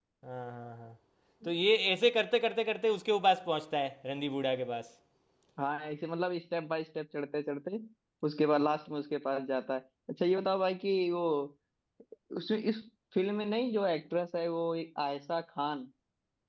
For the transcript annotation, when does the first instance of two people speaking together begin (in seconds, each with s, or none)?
none